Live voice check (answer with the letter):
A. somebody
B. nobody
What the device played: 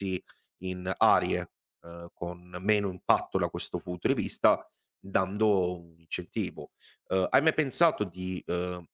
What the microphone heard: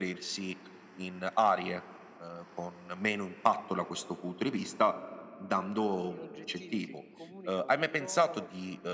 A